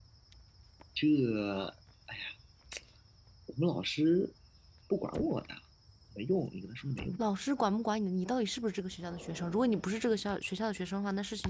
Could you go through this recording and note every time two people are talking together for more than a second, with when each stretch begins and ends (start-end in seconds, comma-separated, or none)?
none